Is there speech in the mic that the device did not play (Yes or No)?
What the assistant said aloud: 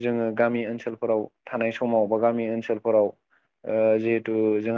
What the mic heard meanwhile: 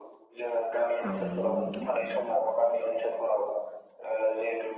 Yes